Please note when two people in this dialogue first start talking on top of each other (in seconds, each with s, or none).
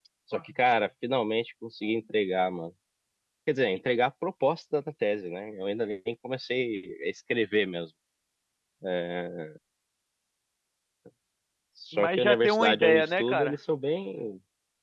11.9 s